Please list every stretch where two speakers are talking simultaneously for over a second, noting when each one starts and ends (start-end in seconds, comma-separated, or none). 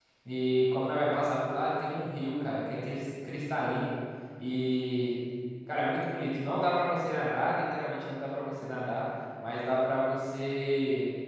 none